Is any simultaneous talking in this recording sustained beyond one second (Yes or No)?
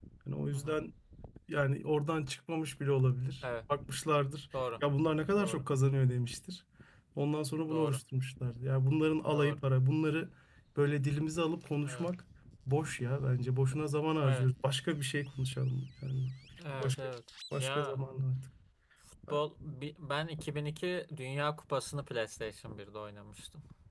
No